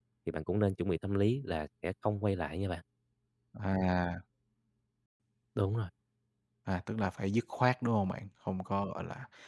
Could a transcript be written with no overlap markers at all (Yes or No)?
Yes